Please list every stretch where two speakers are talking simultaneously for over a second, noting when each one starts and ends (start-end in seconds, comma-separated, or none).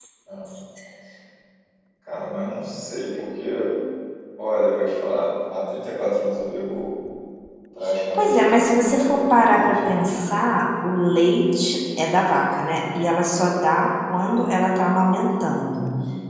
8.1-10.2